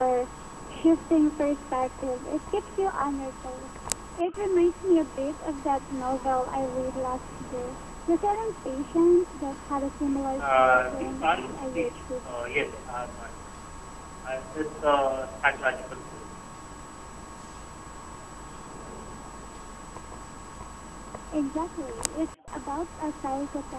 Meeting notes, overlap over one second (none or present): present